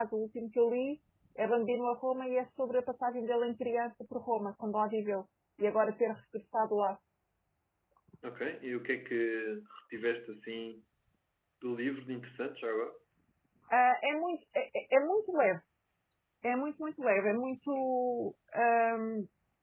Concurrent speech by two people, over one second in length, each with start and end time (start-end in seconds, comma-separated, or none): none